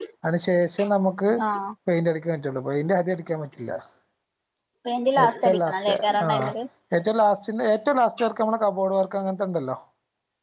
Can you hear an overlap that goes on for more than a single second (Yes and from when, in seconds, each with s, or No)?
Yes, from 5.2 s